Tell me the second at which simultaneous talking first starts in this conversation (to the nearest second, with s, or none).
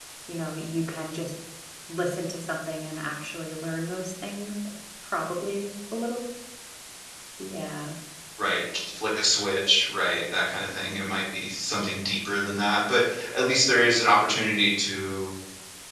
none